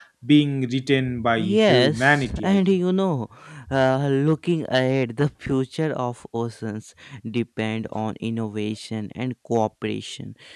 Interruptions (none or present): present